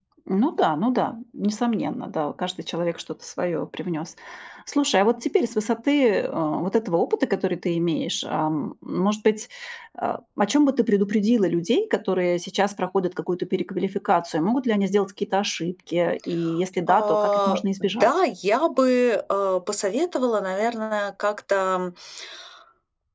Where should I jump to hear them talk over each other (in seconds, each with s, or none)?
16.9 s